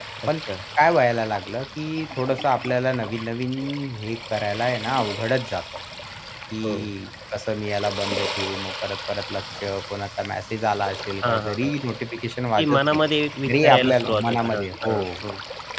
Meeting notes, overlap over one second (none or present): present